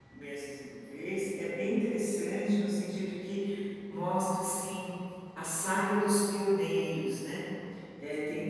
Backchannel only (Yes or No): Yes